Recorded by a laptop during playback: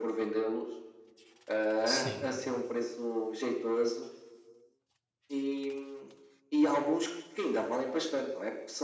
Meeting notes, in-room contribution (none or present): present